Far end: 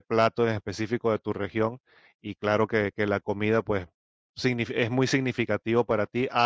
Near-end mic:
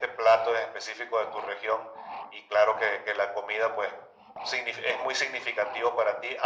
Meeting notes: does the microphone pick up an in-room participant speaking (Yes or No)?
No